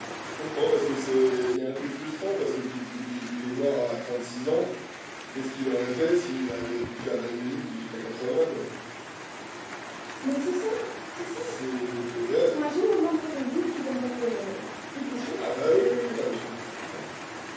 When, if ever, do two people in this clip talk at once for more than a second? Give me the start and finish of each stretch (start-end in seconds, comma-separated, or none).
none